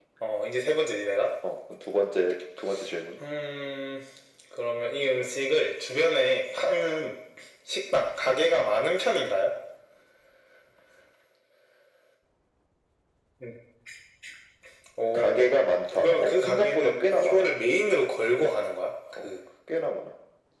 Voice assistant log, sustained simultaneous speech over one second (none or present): present